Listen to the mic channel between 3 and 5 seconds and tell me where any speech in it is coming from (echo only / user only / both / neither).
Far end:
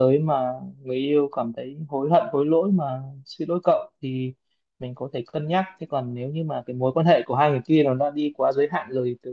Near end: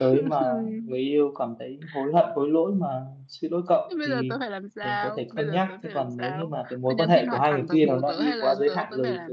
both